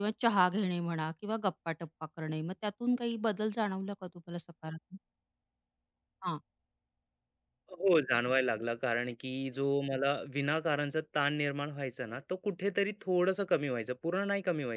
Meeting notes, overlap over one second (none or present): none